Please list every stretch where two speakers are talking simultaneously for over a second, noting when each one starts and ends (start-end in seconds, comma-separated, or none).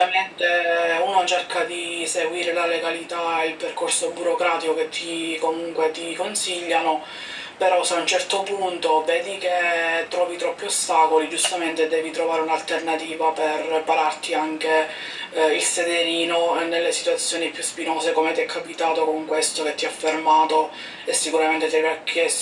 none